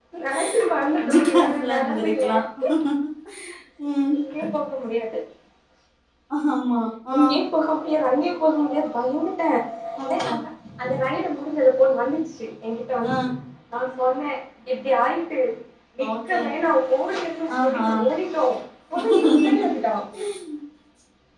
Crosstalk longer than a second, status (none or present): present